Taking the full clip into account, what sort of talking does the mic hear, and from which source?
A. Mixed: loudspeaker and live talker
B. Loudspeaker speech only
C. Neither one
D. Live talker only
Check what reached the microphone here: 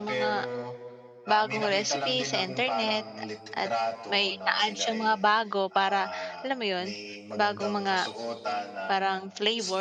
A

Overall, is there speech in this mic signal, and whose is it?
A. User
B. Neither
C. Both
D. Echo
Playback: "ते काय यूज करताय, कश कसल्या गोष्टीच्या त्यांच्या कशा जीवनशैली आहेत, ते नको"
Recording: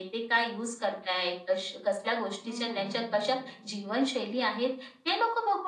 C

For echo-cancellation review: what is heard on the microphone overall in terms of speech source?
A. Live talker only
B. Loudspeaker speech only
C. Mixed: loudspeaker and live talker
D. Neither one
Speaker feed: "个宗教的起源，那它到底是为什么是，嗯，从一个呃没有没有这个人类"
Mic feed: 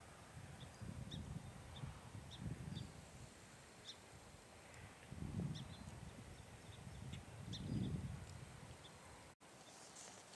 D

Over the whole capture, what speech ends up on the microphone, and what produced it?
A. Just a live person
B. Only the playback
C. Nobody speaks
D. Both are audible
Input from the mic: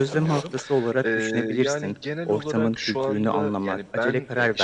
B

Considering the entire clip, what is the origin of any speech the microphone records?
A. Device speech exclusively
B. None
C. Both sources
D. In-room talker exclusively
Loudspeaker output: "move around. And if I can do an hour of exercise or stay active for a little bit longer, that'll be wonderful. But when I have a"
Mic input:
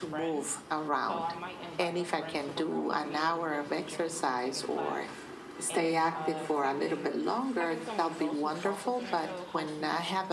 C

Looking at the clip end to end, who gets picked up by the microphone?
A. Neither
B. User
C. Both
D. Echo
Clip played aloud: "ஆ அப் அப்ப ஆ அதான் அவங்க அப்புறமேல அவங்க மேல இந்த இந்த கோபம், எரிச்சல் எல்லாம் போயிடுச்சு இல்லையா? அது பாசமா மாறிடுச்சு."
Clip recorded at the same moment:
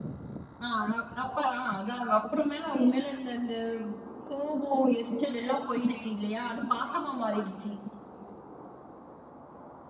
D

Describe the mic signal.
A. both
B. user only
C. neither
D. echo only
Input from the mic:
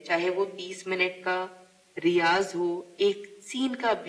D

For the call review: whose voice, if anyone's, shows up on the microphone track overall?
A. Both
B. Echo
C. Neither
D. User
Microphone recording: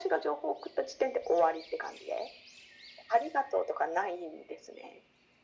B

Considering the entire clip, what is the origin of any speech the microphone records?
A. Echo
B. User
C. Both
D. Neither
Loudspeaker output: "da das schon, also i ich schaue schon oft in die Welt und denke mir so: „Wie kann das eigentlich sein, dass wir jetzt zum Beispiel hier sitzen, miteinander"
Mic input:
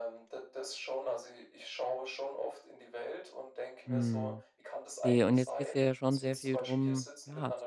C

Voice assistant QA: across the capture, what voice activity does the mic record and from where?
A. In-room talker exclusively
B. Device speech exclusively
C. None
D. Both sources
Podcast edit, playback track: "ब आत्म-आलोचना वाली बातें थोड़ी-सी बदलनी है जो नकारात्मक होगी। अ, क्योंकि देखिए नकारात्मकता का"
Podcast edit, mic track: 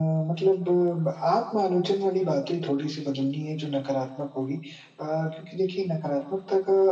B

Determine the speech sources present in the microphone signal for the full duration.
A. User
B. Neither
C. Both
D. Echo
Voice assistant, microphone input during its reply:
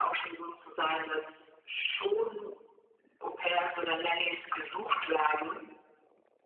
D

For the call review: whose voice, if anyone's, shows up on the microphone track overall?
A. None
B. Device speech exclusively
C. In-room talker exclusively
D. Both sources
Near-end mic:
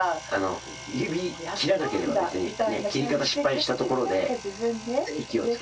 B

